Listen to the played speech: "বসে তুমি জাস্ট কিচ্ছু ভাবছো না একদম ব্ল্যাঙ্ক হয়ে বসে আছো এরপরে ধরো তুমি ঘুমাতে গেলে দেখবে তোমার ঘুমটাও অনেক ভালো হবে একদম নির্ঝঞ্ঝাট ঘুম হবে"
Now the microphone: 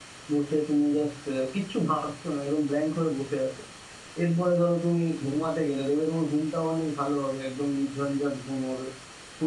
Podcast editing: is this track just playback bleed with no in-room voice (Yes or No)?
Yes